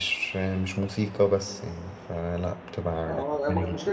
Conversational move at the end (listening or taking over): taking over